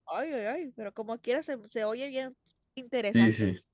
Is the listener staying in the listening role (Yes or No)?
No